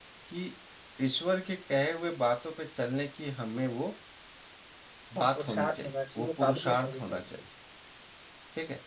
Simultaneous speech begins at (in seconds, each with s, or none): 5.2 s